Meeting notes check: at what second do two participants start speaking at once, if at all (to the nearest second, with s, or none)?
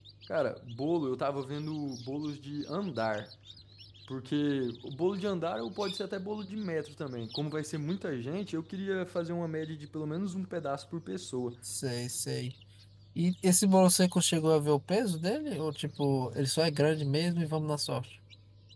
none